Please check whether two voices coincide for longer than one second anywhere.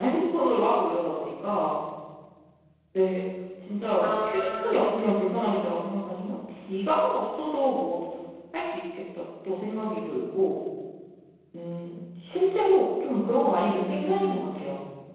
Yes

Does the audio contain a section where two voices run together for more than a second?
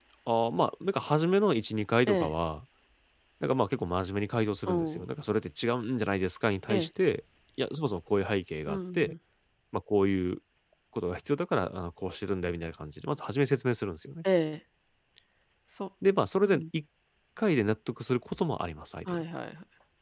No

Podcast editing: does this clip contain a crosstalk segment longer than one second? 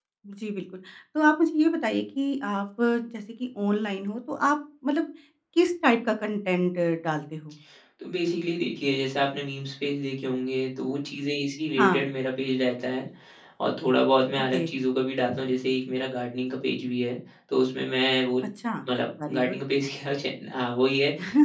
No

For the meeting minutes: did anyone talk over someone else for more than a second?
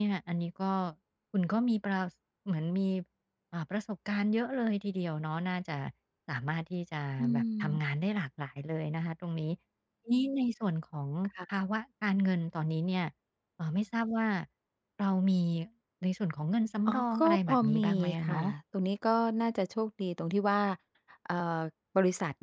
Yes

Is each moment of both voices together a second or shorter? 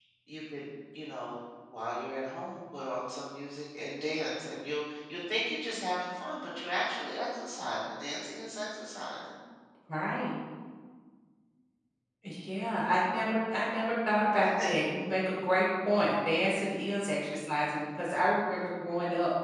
Yes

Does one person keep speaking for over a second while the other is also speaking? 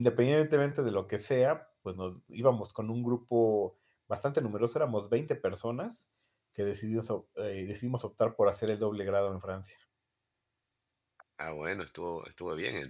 No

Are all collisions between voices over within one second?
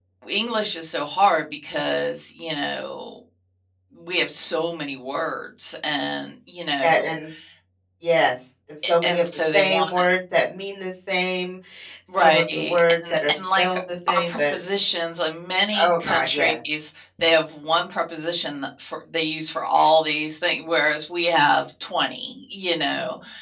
No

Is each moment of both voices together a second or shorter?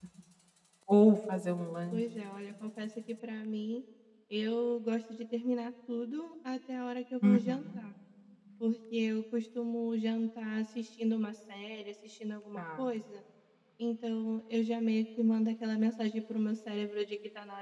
Yes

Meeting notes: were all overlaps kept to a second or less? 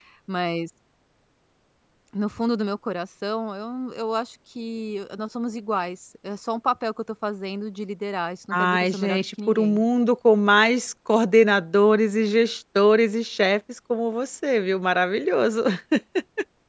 No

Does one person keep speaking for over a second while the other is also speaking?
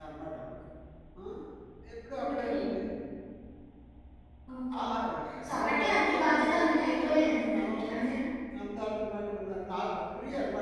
Yes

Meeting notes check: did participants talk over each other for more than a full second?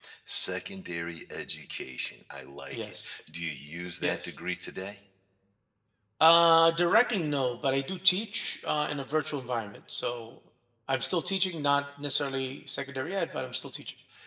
No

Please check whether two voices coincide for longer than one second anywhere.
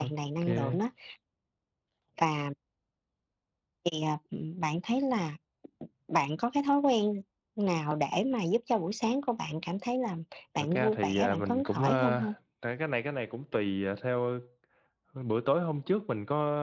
Yes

